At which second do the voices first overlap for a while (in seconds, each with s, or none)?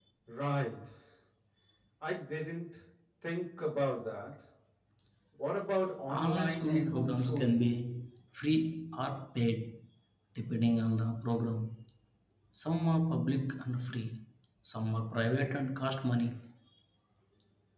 6.1 s